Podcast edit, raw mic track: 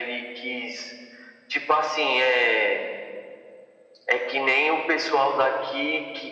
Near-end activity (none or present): none